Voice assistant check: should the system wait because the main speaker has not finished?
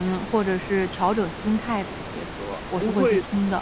No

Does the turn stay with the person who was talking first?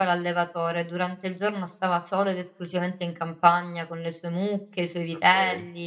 Yes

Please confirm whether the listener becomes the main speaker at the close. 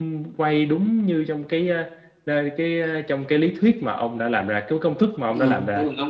Yes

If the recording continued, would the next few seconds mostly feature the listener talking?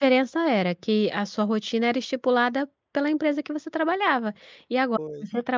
No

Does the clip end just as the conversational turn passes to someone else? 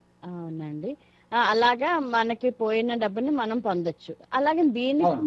No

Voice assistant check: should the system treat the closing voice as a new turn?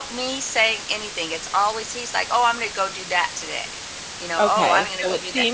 Yes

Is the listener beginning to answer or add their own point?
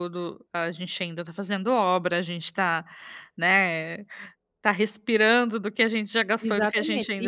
Yes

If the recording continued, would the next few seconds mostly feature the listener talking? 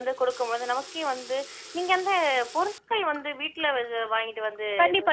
Yes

